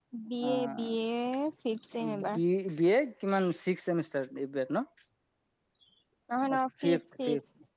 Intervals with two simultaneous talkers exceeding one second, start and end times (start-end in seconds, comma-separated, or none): none